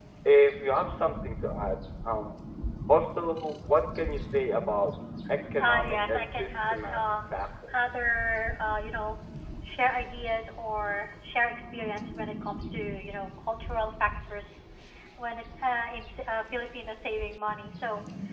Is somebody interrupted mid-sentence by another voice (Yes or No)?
Yes